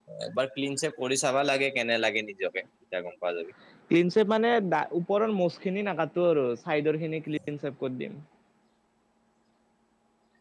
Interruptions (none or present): none